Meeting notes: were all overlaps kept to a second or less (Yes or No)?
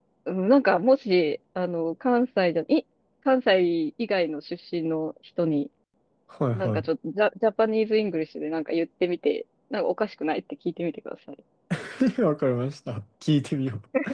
Yes